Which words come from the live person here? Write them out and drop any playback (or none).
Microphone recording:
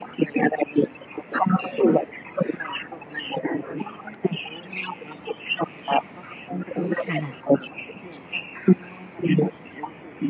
ค่ะ